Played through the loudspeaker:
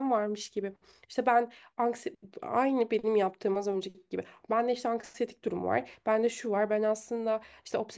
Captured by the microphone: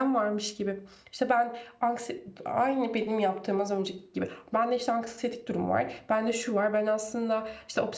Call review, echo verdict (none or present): present